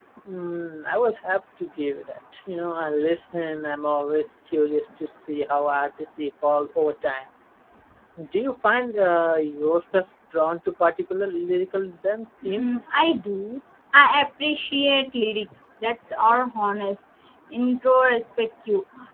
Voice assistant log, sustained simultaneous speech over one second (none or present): none